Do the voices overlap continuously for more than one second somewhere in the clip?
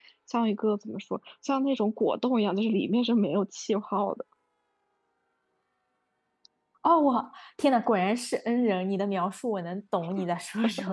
No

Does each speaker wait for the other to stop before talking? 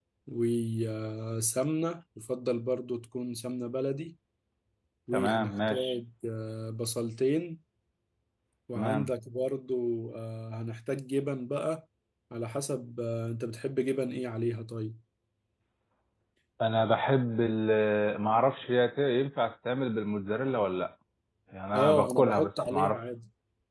No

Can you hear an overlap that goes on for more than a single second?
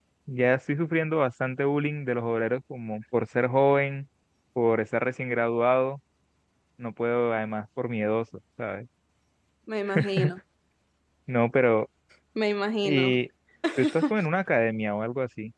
No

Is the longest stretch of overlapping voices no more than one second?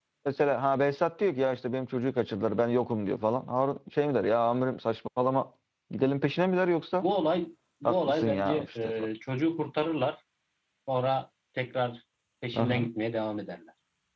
No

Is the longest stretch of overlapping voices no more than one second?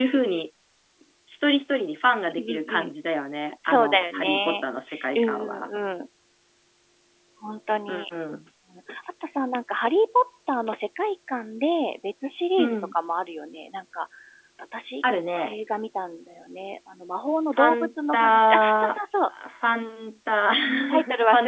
No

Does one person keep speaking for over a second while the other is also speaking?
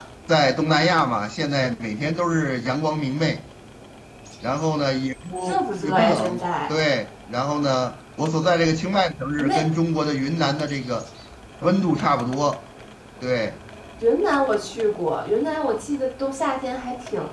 Yes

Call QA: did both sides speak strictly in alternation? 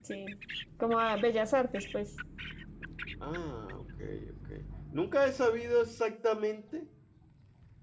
Yes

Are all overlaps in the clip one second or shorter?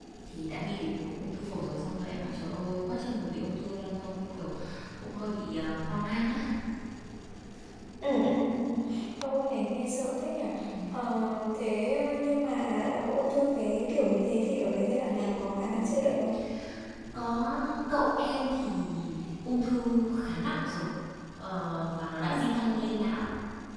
Yes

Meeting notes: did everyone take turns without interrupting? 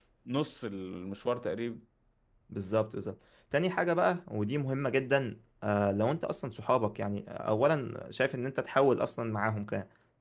Yes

